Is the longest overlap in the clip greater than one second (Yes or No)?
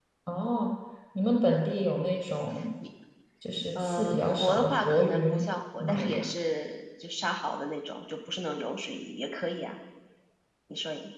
Yes